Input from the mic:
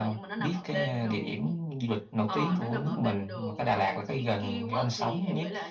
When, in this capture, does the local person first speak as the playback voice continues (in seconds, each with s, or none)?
none